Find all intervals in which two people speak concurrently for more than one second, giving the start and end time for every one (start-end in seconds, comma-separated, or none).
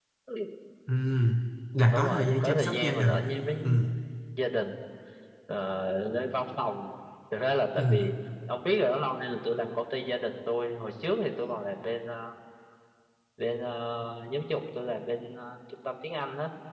1.9-3.2